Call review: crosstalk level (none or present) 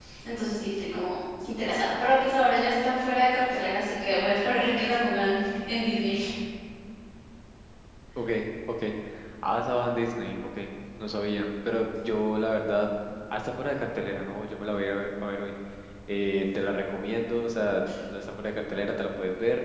none